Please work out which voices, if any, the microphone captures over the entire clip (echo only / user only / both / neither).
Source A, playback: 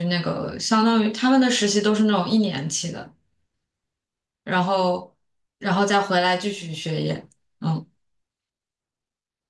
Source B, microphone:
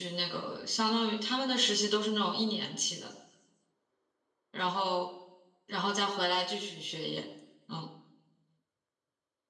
echo only